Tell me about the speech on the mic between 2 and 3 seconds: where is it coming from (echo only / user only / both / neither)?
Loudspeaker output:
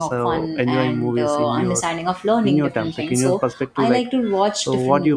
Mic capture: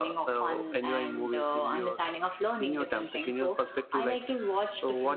echo only